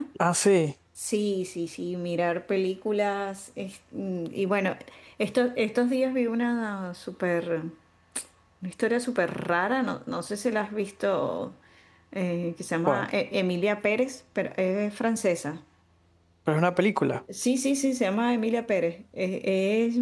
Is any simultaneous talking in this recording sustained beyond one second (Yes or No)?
No